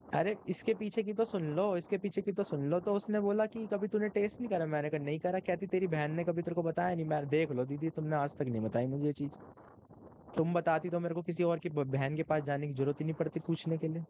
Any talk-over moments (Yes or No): No